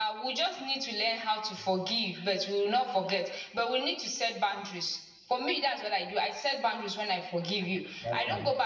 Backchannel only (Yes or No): Yes